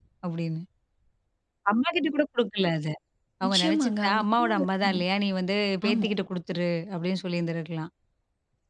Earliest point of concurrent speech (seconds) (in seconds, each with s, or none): 3.4 s